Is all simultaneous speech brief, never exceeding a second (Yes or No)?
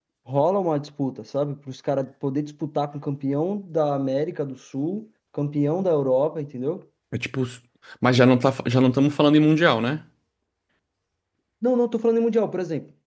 Yes